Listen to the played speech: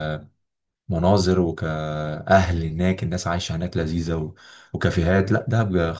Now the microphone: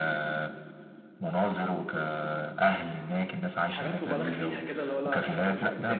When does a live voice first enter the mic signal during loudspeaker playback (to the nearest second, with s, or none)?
4 s